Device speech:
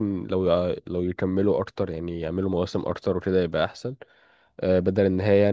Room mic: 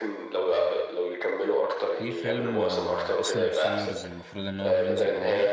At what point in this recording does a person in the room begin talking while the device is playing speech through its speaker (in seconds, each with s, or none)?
1.9 s